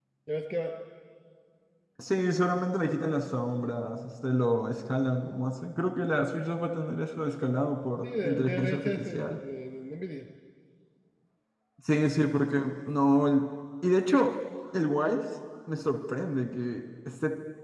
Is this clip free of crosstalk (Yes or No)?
No